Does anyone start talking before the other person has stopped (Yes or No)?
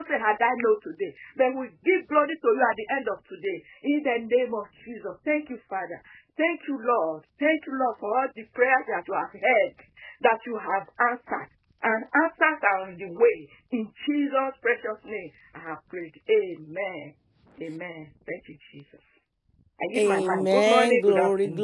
Yes